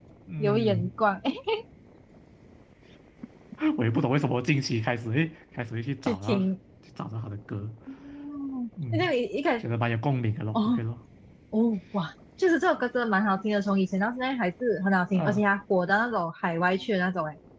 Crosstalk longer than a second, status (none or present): none